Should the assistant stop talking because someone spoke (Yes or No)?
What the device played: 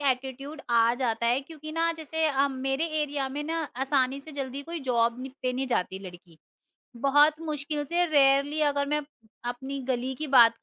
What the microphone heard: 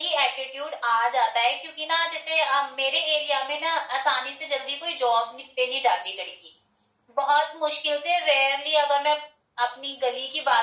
No